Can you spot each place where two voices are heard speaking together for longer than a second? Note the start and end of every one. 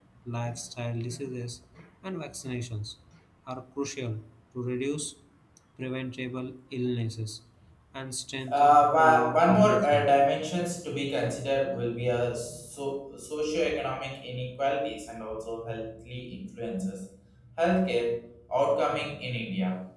8.5-10.1

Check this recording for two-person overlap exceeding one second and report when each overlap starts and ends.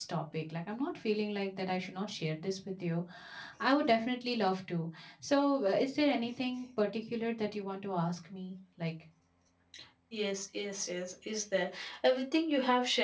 none

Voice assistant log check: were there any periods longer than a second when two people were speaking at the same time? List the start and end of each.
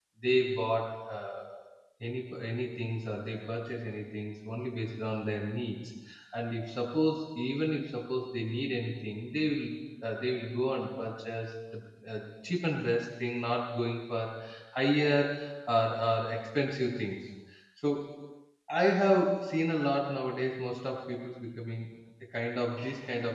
none

